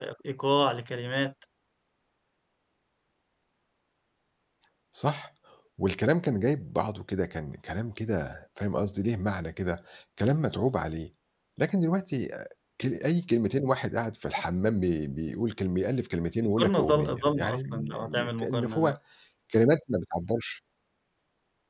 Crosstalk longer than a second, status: present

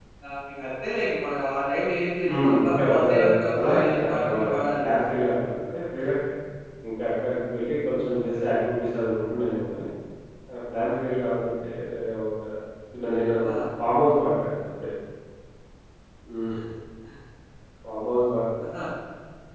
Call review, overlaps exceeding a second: present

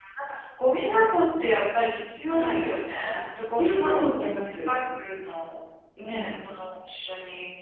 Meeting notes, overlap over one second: present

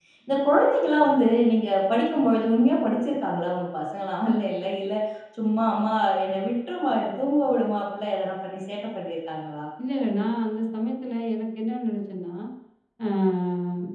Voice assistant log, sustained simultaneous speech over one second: none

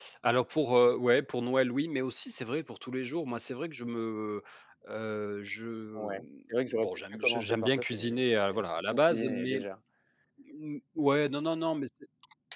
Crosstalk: present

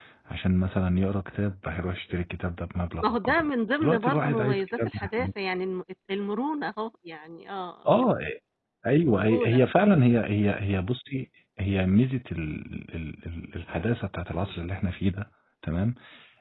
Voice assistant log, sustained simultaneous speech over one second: present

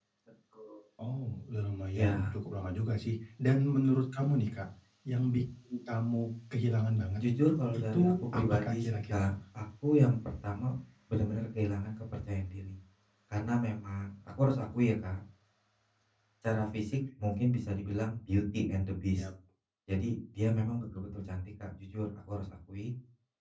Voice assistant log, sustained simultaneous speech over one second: present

